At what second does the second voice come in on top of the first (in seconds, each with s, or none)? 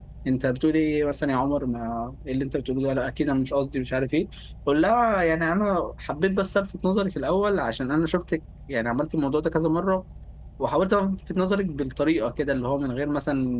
none